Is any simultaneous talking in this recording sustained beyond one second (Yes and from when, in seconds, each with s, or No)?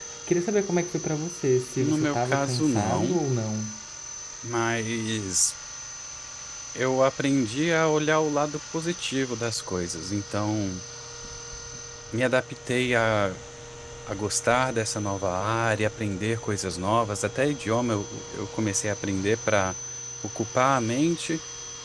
Yes, from 1.8 s